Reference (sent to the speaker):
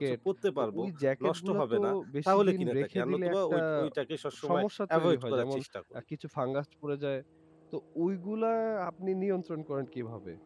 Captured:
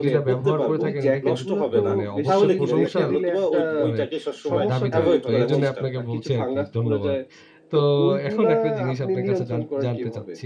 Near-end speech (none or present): present